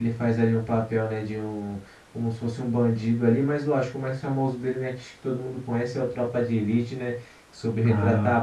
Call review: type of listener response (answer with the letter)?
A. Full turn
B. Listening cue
B